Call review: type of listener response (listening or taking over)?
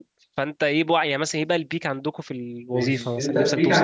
taking over